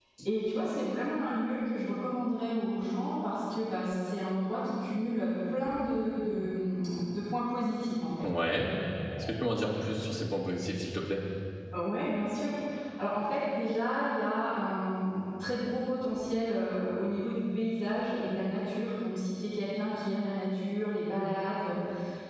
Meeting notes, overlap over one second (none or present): none